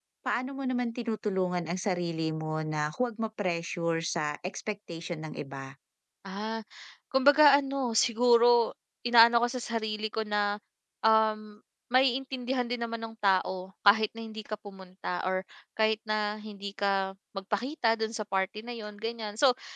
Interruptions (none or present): none